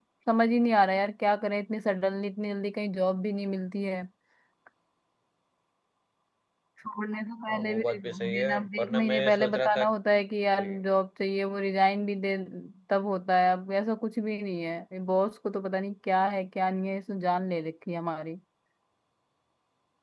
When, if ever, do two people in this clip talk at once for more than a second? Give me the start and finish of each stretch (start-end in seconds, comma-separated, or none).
7.5-9.8